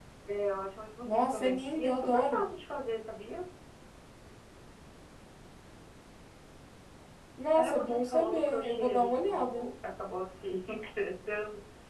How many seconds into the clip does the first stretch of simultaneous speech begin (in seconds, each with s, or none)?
1.1 s